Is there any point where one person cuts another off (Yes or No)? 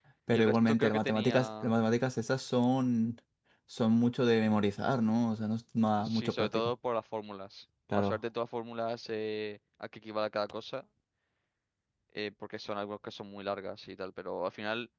Yes